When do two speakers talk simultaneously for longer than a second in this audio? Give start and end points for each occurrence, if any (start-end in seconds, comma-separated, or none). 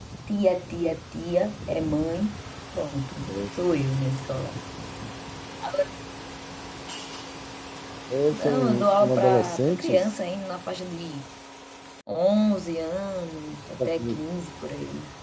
8.3-10.0